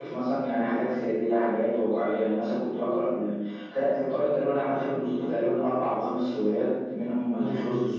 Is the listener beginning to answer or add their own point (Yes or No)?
No